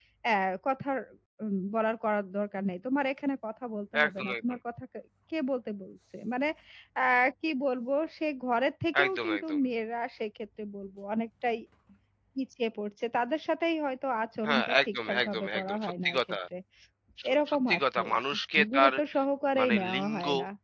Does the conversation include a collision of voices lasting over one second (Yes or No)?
Yes